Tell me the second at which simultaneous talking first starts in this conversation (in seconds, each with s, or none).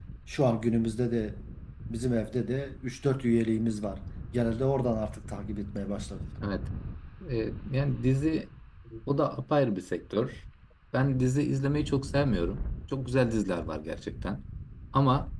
none